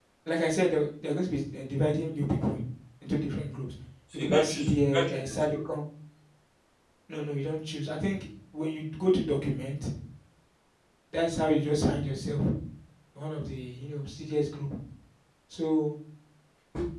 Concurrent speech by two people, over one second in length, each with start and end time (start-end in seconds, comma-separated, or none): 4.1-5.6